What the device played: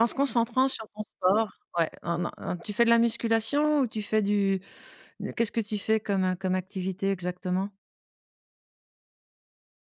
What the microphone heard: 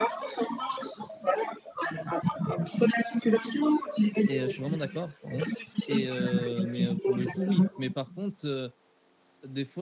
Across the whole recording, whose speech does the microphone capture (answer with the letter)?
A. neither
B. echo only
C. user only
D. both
D